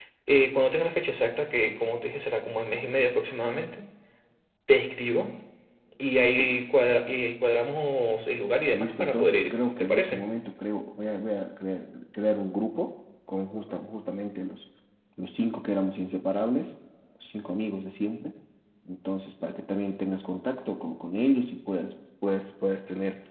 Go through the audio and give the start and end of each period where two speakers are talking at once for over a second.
8.7-10.2

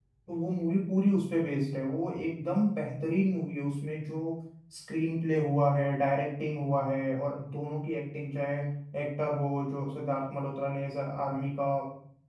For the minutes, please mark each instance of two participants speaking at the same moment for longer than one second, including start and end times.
none

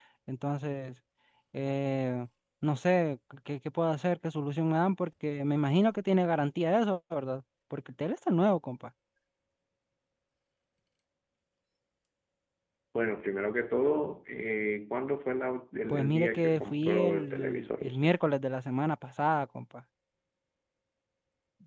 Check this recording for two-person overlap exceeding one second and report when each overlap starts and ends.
15.9-18.1

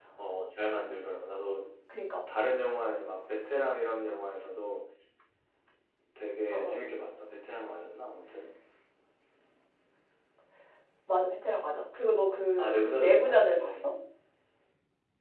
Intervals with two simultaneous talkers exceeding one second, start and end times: 12.6-13.8

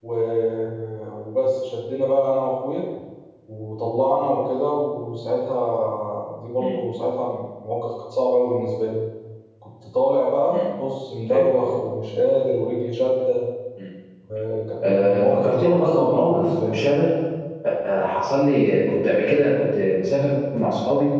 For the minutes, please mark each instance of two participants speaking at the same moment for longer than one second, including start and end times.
14.8-16.9

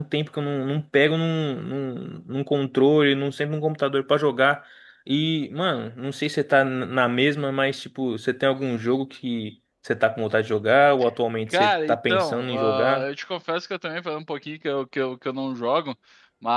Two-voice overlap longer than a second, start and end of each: 11.5-13.0

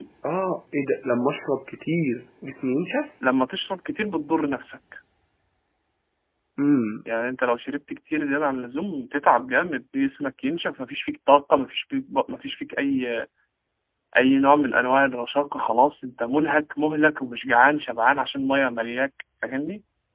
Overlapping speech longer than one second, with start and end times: none

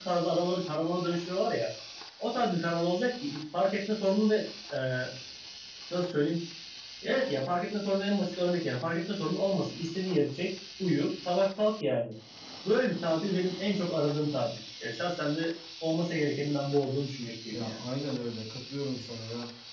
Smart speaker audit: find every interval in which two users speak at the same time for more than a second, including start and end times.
none

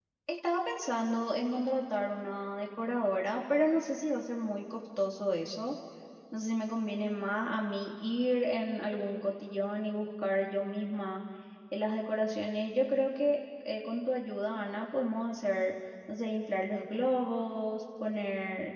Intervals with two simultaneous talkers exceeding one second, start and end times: none

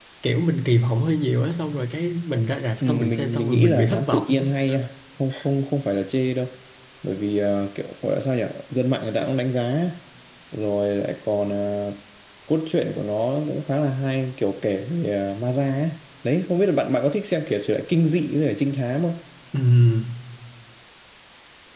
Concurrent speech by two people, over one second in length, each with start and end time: 2.8-4.5

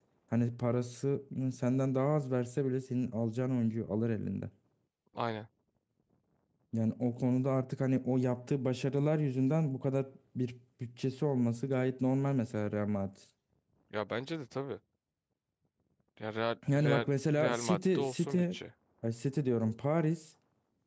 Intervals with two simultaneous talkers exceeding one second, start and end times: 16.7-18.4

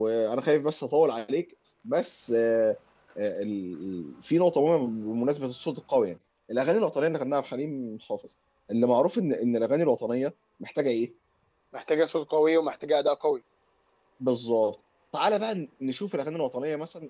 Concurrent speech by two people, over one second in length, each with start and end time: none

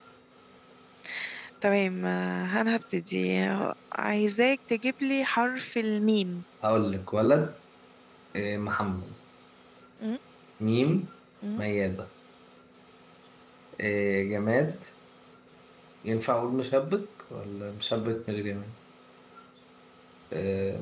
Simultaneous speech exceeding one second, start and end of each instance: none

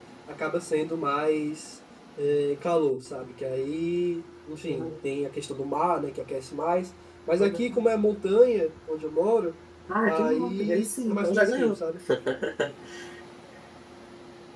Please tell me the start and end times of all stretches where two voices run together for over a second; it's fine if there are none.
10.1-11.7

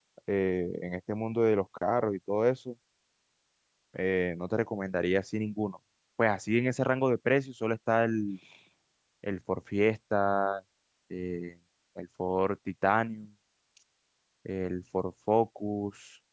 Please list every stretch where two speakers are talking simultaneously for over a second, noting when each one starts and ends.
none

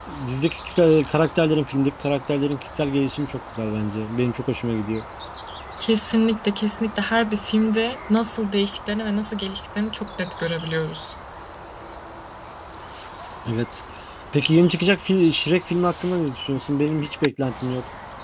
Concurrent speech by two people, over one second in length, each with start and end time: none

